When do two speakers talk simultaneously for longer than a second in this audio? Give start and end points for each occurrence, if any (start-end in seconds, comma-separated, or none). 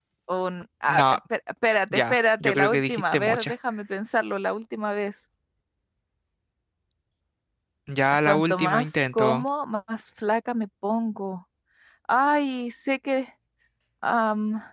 1.9-3.5, 8.2-9.4